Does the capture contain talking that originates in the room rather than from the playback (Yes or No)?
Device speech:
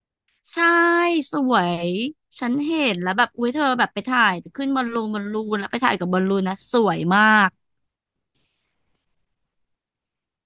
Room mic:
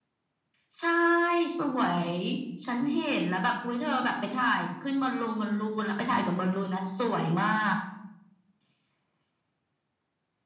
Yes